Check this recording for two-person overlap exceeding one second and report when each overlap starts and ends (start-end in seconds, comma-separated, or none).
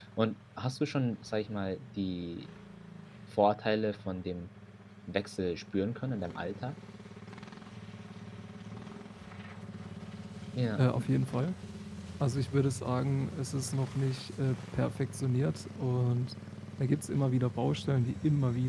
none